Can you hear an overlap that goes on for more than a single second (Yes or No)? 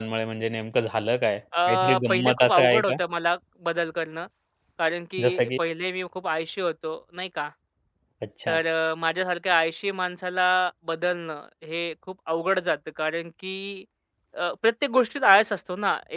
Yes